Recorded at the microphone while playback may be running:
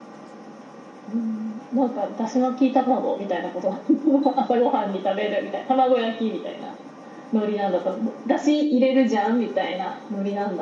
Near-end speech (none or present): none